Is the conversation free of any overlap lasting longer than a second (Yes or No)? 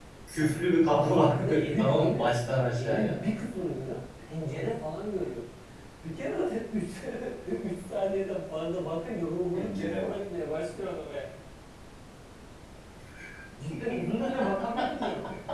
No